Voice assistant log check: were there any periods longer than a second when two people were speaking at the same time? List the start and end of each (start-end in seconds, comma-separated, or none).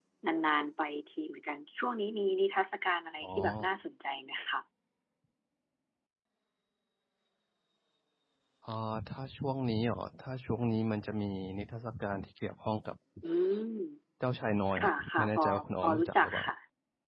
14.8-16.4